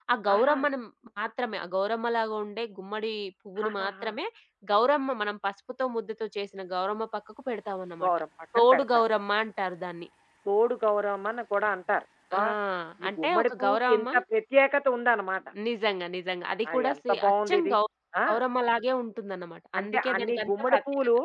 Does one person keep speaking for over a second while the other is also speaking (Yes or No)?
Yes